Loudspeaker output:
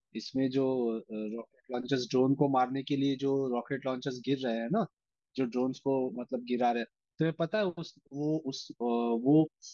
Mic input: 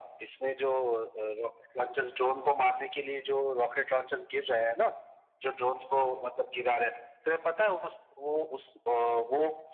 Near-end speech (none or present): none